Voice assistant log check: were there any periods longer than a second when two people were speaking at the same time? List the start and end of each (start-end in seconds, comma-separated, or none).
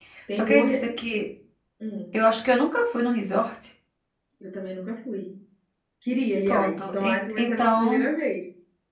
6.5-8.1